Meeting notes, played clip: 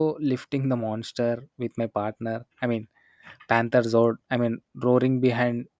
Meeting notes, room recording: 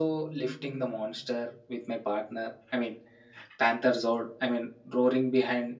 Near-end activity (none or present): none